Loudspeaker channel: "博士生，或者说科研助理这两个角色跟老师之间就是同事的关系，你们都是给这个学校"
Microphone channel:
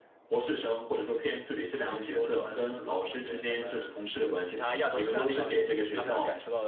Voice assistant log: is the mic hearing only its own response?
No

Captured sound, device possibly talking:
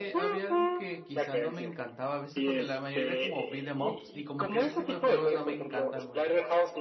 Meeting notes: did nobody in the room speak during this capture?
No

